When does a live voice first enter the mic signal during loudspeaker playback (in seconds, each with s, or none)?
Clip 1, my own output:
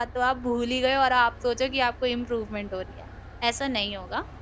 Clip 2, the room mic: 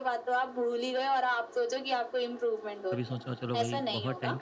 2.9 s